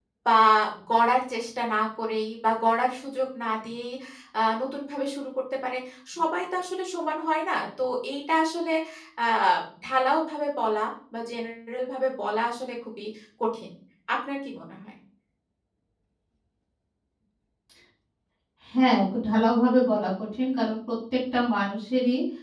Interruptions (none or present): none